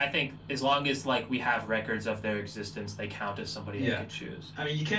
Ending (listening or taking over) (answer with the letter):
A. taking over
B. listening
A